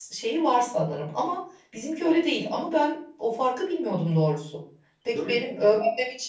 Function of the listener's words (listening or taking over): listening